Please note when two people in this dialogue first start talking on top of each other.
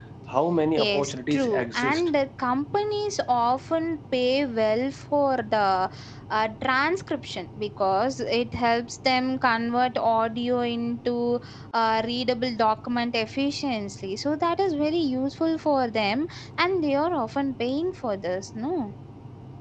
0.8 s

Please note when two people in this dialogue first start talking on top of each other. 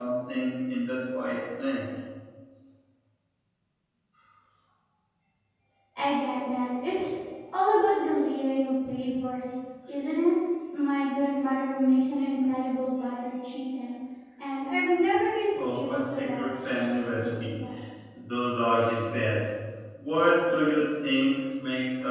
15.6 s

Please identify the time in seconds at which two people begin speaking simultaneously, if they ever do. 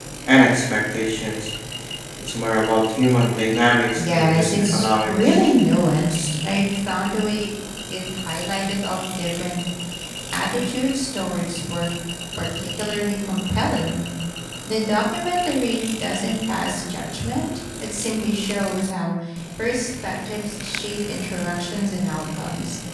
4.0 s

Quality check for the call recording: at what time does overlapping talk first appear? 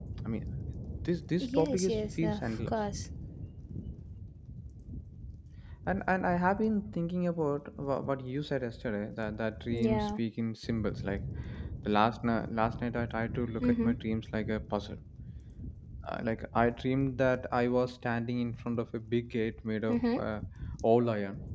1.4 s

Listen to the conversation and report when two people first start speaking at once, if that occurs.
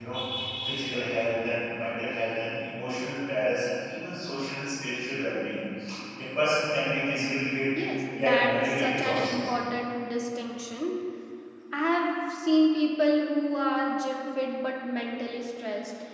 8.2 s

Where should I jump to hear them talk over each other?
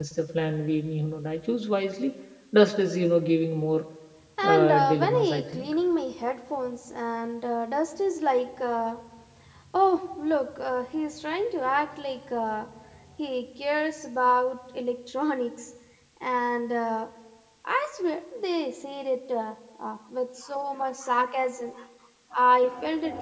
4.4 s

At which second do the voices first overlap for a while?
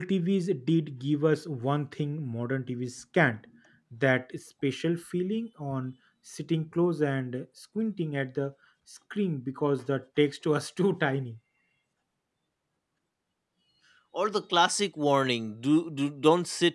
none

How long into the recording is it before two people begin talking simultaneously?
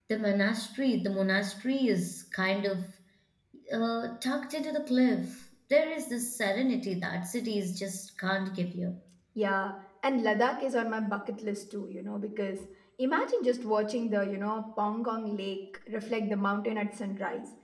none

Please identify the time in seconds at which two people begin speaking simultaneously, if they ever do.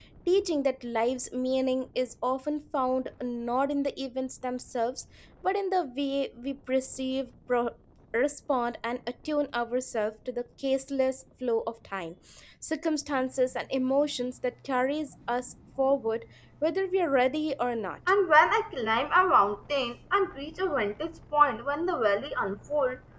none

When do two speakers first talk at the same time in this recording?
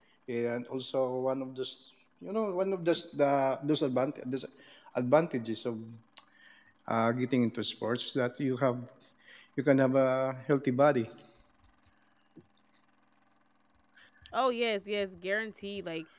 none

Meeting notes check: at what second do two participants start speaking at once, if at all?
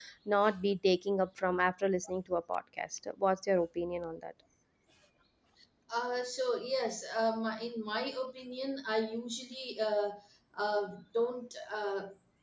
none

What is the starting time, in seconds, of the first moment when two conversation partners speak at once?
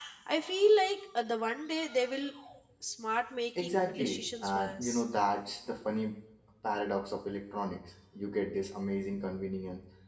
3.6 s

